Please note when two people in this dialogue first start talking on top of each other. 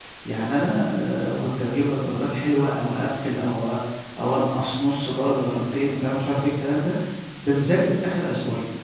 none

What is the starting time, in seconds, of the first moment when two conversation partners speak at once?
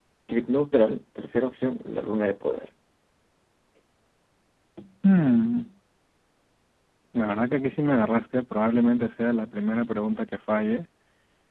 none

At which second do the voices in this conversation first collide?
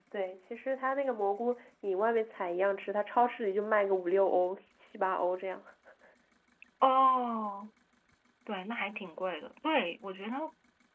none

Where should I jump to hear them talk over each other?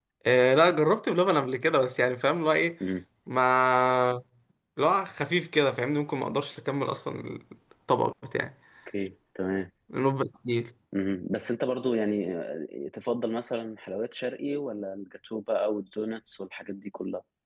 none

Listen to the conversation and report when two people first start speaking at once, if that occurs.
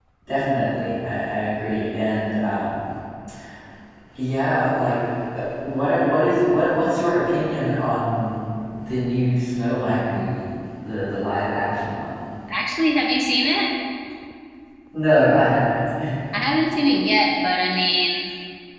none

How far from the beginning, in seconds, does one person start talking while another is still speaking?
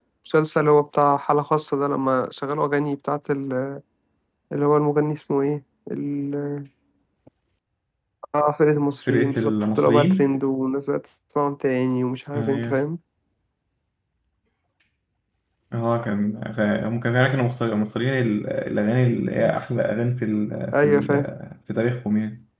9.1 s

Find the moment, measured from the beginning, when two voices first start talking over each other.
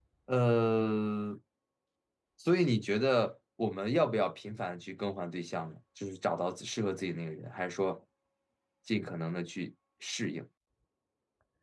none

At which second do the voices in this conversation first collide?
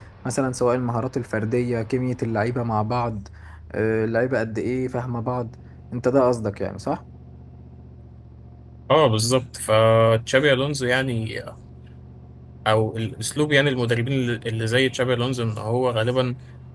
none

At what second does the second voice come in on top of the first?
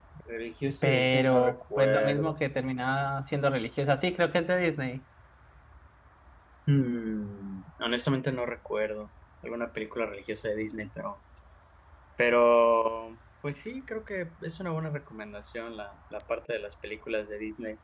0.8 s

